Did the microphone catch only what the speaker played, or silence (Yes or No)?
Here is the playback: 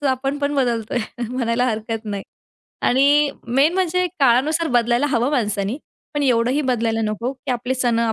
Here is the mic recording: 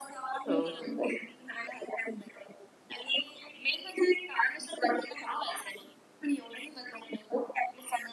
No